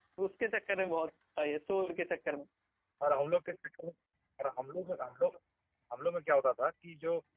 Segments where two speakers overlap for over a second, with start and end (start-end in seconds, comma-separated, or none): none